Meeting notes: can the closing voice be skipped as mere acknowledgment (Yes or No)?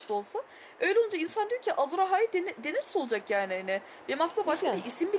Yes